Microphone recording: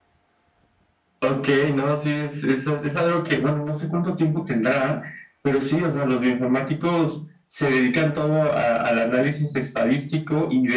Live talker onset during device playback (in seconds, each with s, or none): none